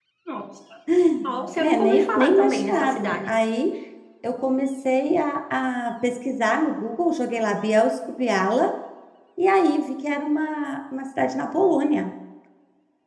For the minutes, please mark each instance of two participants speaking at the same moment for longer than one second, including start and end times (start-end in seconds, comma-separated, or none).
1.6-3.4